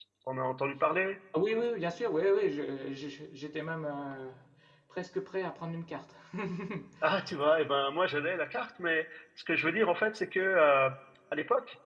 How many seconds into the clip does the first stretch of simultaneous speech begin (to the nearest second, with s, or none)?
none